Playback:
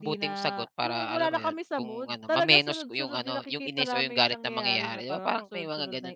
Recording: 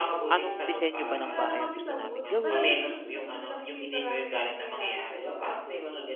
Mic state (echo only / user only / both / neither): both